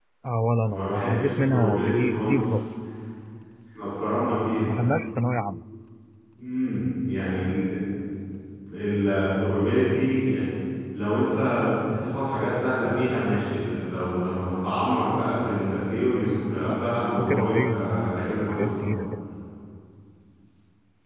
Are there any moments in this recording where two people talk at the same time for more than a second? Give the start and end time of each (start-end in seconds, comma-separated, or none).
0.7-2.6, 16.6-19.0